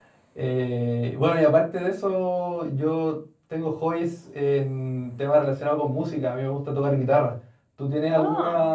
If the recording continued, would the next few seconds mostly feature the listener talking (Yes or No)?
No